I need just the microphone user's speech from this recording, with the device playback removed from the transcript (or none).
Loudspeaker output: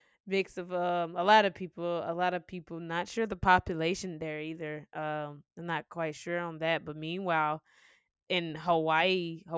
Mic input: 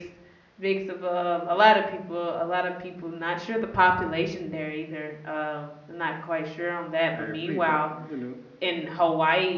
I read that you know